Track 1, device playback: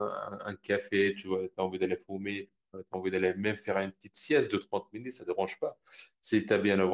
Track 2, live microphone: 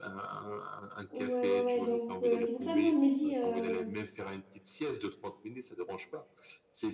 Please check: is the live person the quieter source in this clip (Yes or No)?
No